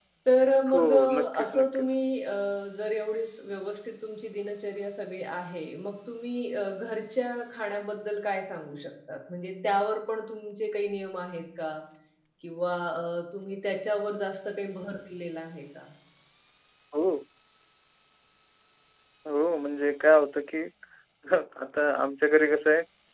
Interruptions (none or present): present